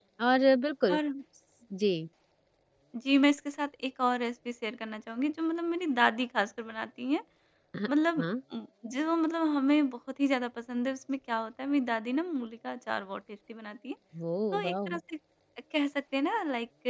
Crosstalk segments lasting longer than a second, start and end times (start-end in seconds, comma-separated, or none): none